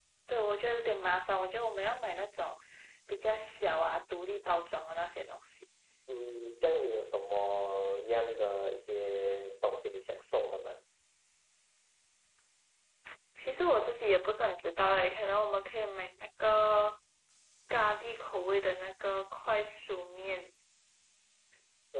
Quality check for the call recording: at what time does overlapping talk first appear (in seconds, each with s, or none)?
none